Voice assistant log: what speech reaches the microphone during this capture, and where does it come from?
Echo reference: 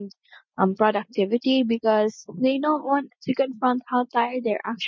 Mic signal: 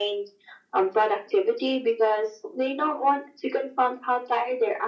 echo only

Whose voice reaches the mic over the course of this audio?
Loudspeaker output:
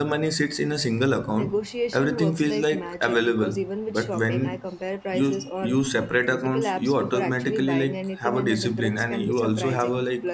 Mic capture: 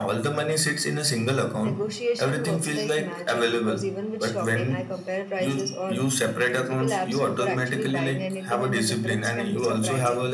echo only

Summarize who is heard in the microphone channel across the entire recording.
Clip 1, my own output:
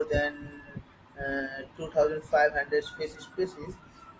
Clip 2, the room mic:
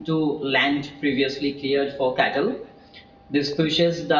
user only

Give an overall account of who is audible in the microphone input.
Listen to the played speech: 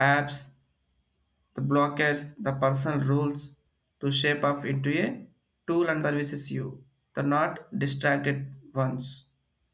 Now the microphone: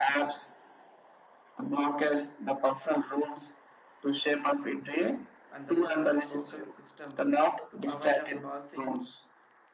both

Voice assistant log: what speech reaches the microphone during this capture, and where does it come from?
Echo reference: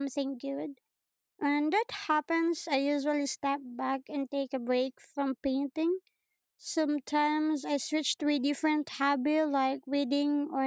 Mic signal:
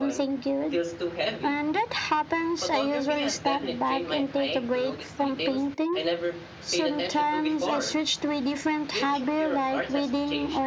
both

